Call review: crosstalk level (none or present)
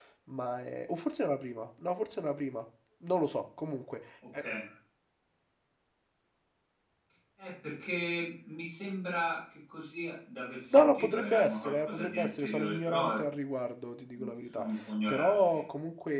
present